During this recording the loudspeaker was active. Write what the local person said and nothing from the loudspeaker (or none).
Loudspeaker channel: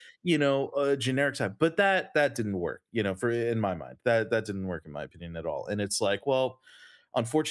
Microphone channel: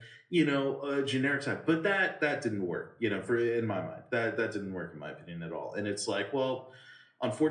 none